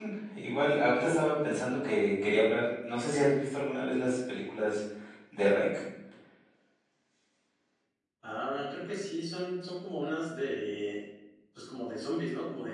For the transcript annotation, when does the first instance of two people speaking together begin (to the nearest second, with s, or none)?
none